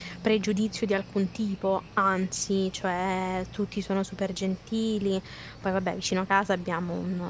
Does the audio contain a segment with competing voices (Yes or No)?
No